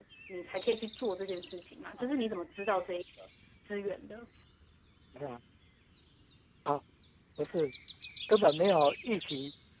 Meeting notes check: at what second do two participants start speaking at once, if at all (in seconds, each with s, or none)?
none